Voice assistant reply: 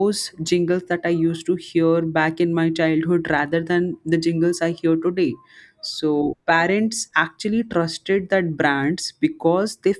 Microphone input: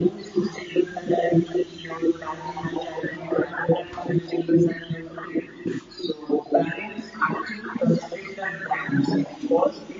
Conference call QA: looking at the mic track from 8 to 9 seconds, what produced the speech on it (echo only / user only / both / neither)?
echo only